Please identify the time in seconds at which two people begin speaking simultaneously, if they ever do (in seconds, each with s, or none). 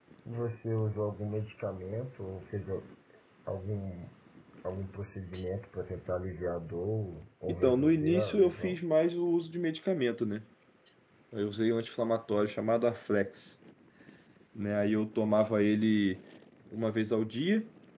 7.5 s